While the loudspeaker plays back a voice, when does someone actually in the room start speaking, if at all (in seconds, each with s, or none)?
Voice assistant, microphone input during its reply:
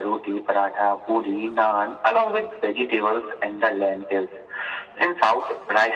none